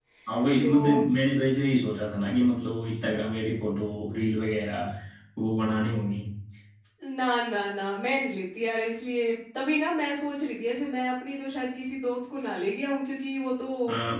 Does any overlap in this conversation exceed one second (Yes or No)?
No